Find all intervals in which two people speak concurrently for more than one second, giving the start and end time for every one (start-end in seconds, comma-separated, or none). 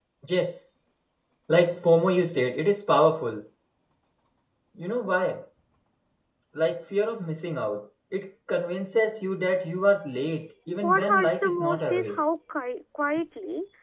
10.8-12.2